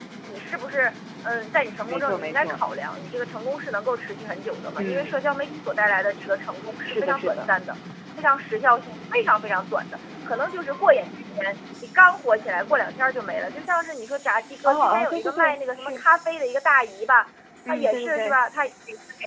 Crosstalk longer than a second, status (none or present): present